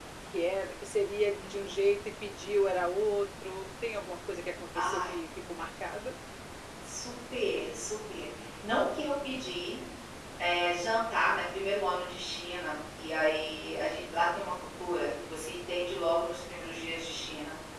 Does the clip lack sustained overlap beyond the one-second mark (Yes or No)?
Yes